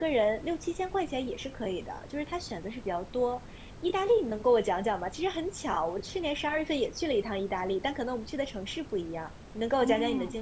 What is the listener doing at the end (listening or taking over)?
taking over